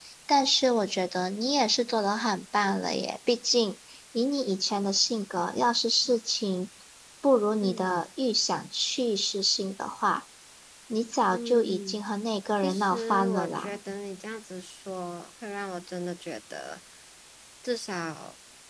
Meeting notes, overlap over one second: present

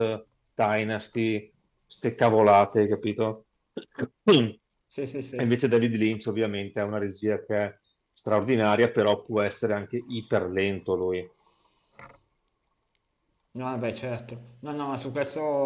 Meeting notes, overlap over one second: none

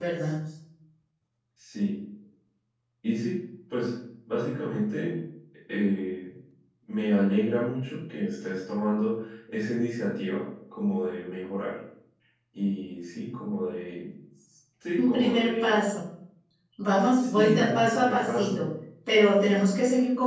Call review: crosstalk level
present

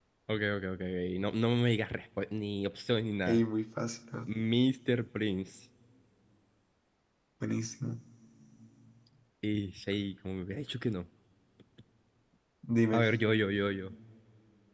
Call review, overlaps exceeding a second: none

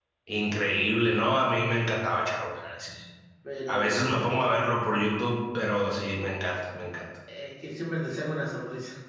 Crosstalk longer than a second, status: none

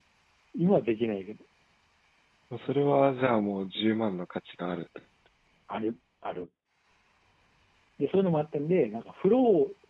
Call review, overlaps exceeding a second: none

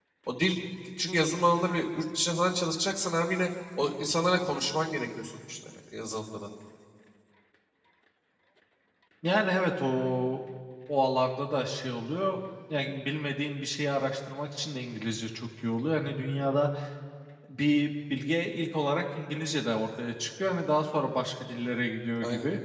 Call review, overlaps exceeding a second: none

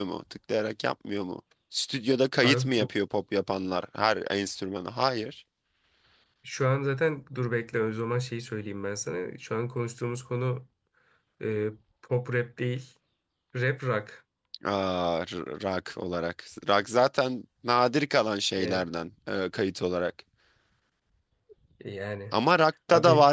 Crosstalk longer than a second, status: none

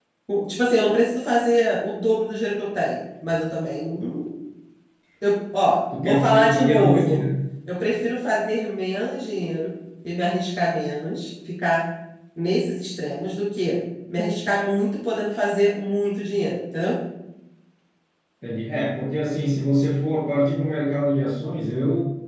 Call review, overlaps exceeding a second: present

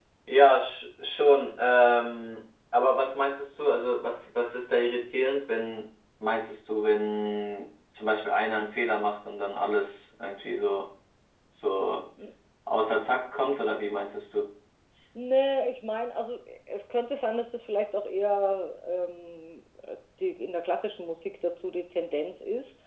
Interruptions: none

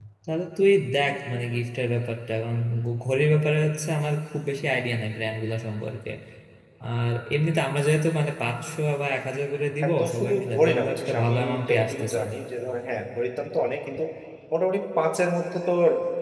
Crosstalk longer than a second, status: present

